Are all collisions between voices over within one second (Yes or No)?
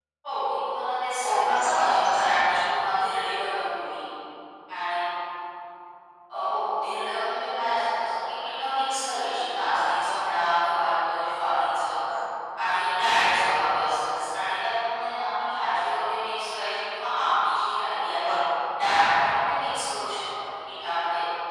No